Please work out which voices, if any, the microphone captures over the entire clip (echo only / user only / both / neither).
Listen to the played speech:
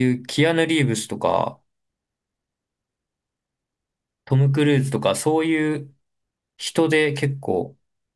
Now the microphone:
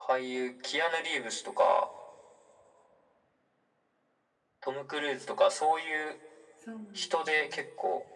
both